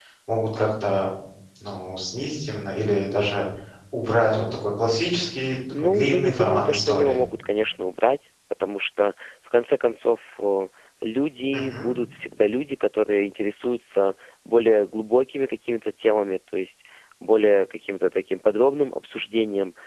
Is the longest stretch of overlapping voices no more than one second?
No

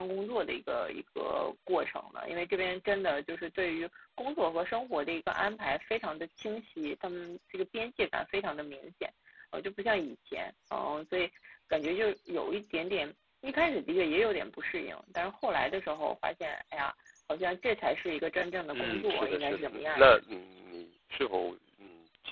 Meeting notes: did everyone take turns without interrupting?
No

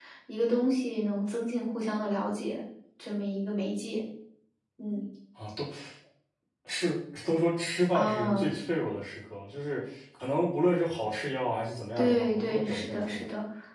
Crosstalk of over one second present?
Yes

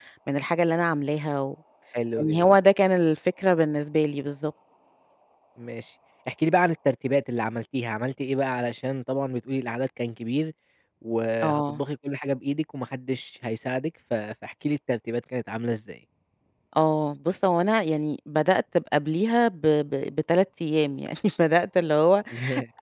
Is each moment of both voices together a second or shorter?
Yes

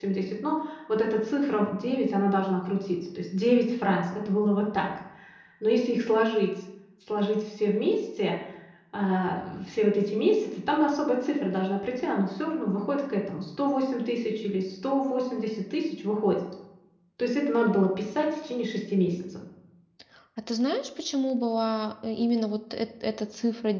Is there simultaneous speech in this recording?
No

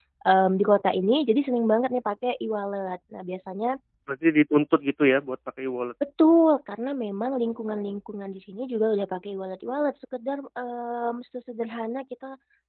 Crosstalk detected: No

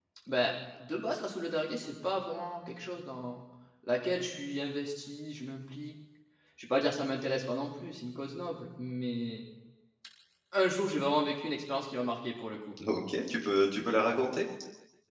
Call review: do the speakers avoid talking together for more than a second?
Yes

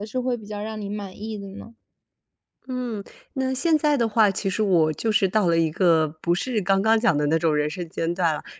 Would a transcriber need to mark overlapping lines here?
No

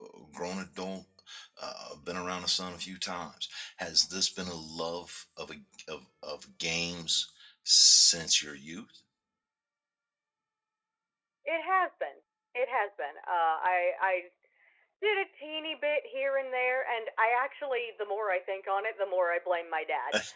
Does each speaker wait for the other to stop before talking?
Yes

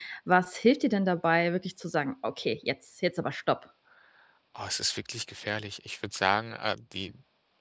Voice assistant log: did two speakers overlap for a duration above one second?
No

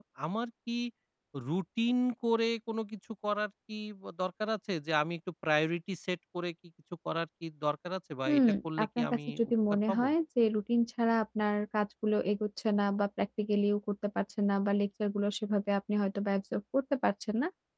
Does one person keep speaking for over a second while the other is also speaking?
Yes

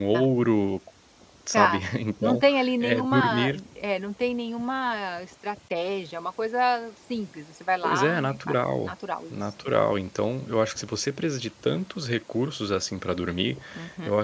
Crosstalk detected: Yes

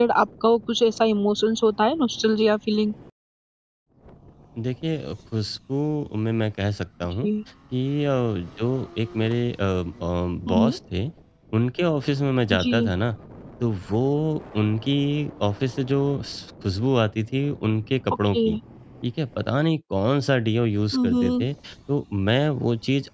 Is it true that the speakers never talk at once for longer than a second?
Yes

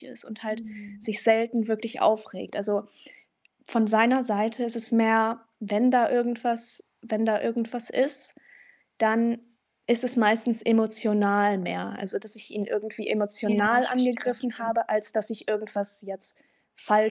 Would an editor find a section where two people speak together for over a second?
Yes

